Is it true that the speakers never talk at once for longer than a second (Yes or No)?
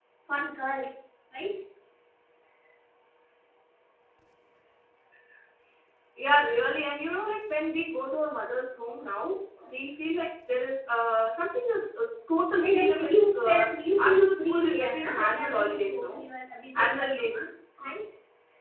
No